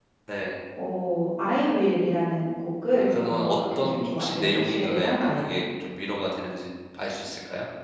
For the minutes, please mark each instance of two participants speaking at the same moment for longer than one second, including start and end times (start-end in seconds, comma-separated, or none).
3.0-5.6